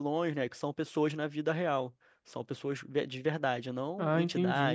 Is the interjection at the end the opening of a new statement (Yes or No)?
Yes